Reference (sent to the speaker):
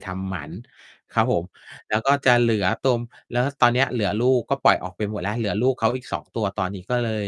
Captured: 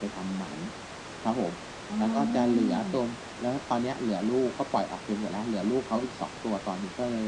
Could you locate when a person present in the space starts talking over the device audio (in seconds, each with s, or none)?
1.9 s